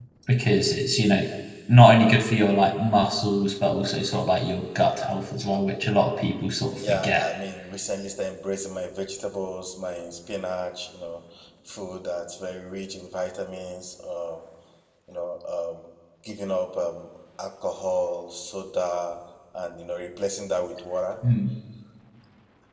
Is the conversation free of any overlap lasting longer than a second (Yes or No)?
Yes